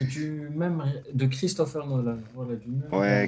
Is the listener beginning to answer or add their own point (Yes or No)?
Yes